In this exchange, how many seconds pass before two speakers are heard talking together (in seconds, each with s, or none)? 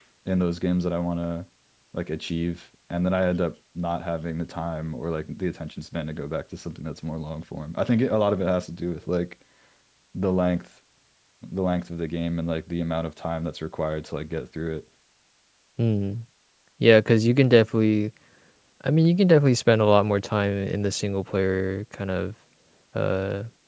none